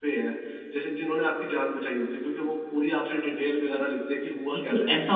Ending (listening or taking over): taking over